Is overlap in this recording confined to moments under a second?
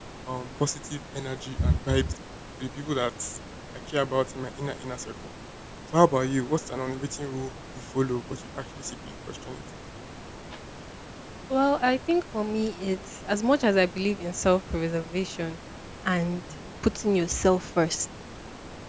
Yes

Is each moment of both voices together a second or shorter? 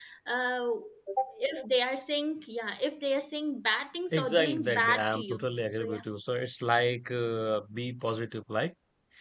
No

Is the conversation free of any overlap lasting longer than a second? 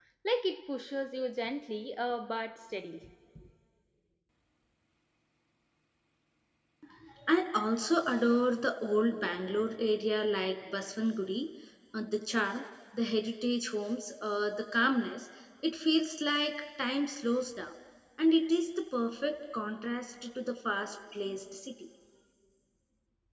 Yes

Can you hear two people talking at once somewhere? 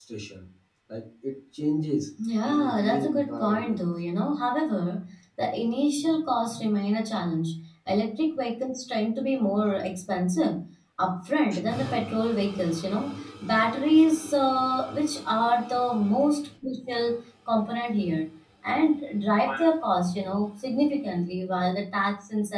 Yes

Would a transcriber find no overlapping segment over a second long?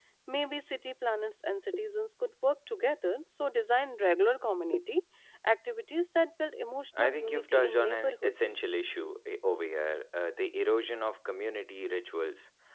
No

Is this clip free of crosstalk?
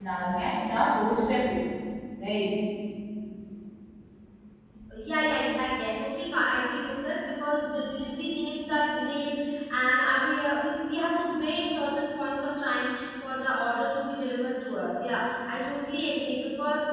Yes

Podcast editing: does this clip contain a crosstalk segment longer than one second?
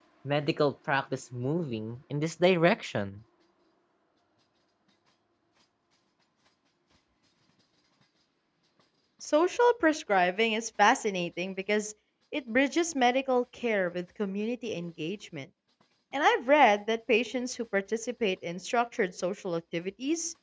No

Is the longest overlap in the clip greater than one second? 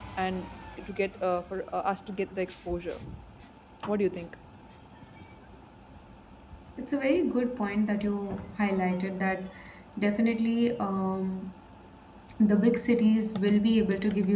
No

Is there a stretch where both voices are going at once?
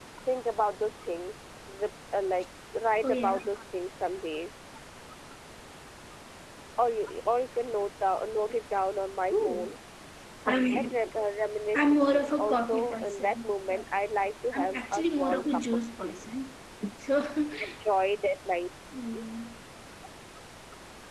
Yes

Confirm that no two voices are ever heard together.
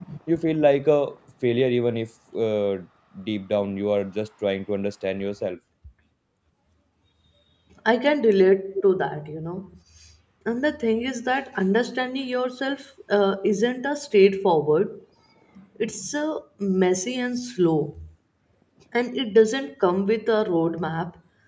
Yes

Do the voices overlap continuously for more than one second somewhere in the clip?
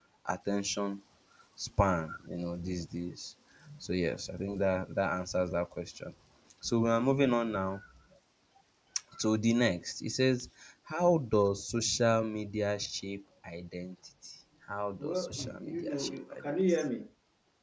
Yes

